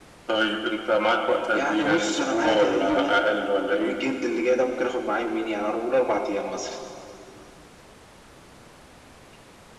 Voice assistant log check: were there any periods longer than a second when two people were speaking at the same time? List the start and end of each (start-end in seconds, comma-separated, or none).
1.5-3.3